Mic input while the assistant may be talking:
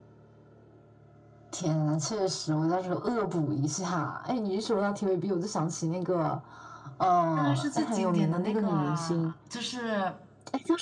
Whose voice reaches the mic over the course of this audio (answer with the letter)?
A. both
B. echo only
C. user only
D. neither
A